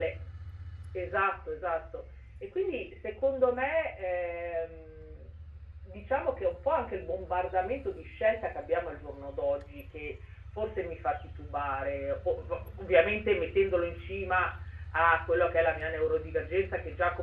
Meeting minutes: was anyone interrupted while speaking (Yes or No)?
No